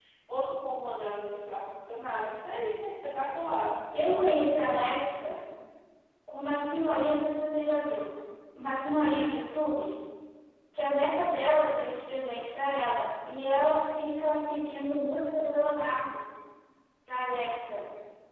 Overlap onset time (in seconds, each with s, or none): none